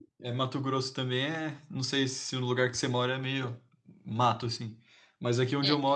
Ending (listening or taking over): listening